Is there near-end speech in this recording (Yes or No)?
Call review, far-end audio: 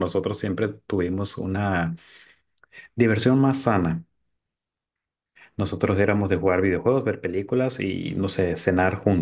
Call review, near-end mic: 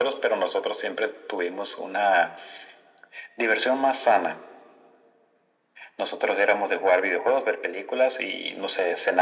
No